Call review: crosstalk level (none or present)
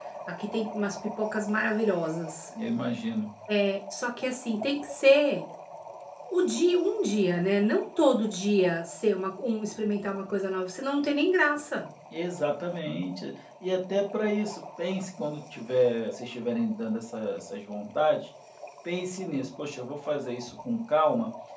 none